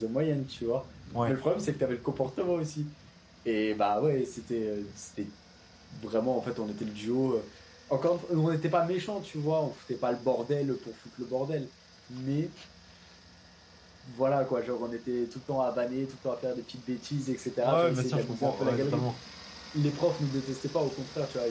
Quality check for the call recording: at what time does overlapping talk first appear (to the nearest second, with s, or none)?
18 s